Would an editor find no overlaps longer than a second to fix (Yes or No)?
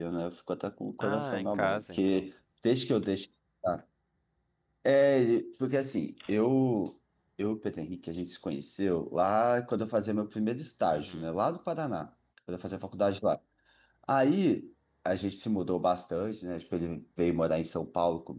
No